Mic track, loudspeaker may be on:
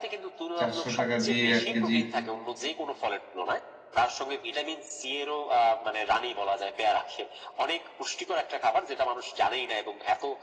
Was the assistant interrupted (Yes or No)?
Yes